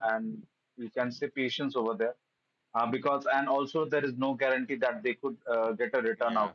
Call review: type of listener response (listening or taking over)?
taking over